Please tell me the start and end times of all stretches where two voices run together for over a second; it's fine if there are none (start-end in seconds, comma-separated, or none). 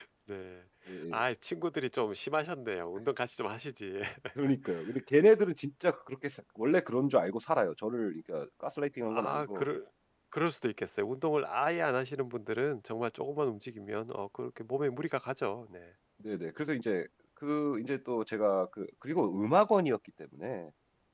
none